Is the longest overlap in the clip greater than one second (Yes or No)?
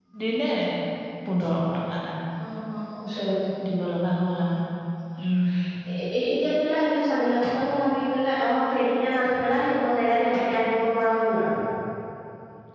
No